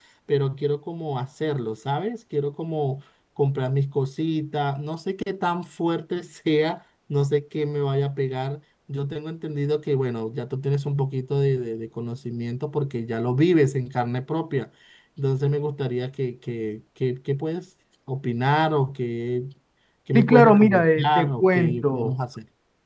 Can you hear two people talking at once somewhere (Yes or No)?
Yes